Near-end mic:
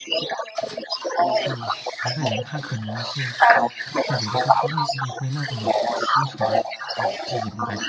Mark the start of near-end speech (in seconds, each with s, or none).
1.4 s